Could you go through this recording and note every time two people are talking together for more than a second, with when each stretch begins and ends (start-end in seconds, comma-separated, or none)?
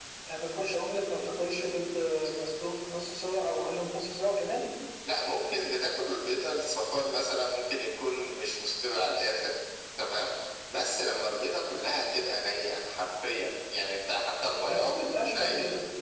none